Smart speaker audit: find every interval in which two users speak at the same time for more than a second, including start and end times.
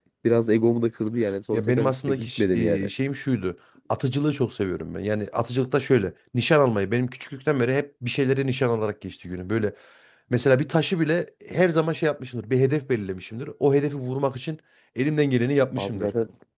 1.5-2.9

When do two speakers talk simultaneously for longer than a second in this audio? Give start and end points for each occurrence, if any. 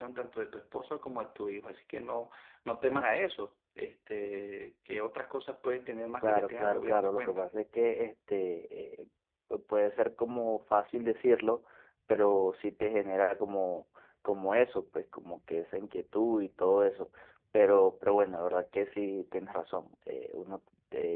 6.2-7.5

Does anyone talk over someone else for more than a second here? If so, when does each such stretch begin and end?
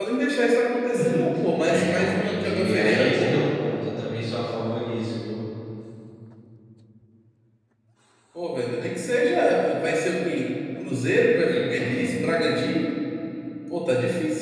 1.7-3.4

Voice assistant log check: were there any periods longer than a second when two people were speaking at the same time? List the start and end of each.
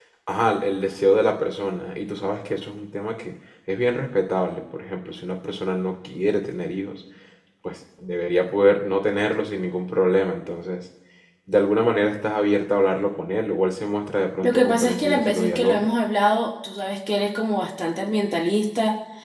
14.4-15.8

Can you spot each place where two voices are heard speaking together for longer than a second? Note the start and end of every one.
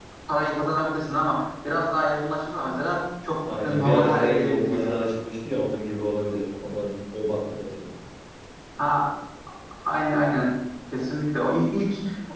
3.5-5.0

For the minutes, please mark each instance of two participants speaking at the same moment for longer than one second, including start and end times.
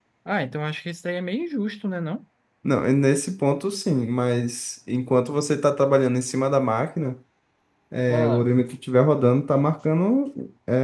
none

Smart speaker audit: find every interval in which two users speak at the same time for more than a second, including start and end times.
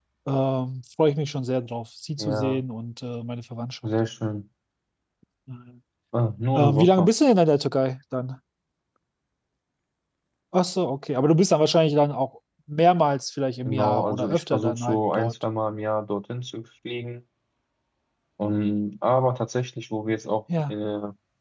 13.6-15.3

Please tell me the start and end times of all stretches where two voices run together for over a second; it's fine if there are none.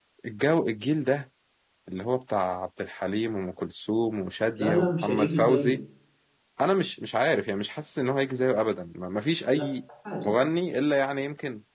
4.5-5.8

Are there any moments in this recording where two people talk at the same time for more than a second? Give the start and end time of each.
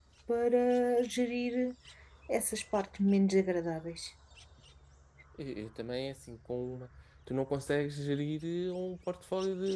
none

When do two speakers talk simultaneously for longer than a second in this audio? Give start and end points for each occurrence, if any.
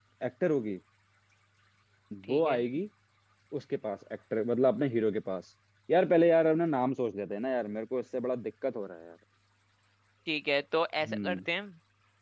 none

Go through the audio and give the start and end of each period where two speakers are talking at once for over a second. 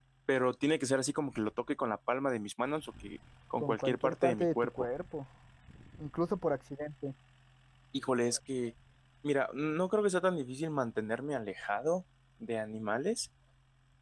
3.6-4.9

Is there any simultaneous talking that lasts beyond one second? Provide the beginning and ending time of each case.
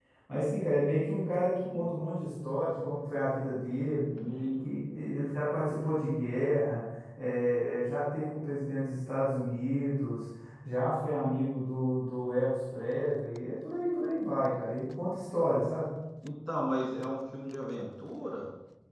none

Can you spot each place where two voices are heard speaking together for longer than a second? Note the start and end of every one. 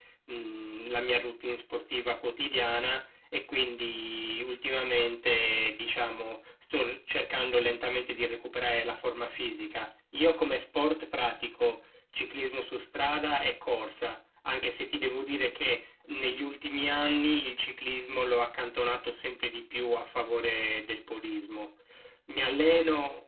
none

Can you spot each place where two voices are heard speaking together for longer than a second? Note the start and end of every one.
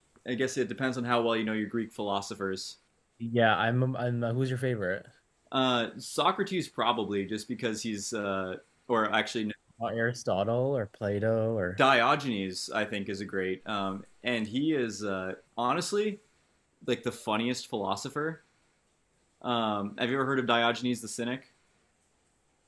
none

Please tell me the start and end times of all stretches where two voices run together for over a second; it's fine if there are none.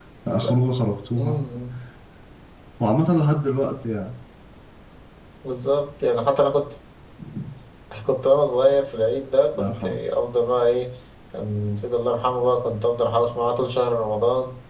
none

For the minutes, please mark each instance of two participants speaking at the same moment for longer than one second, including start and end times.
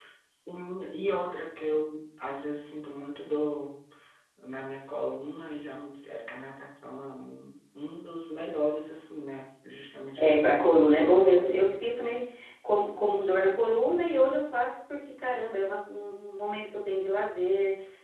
10.2-11.7

